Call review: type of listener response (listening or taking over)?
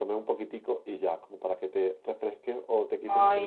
listening